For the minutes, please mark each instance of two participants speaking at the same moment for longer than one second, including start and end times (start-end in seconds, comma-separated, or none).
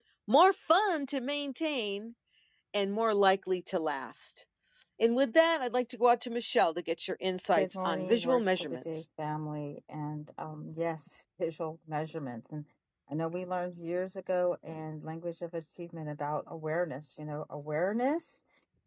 7.6-9.0